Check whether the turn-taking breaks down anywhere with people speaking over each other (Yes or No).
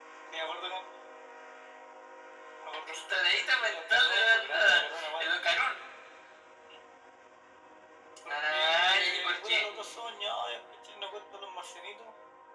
Yes